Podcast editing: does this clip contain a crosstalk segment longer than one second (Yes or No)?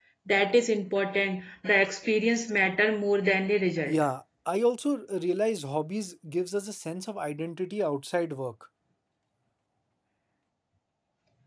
No